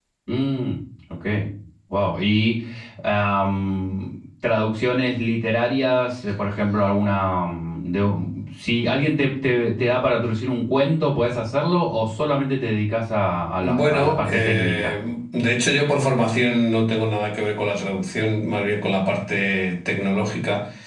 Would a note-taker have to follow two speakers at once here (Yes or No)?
Yes